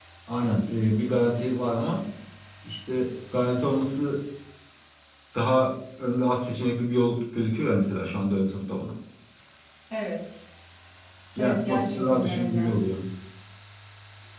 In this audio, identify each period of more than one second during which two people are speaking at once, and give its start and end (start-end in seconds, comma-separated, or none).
11.4-12.7